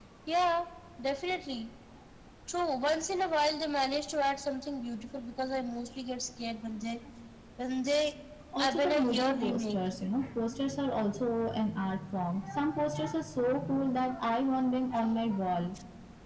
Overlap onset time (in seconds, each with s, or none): 8.6 s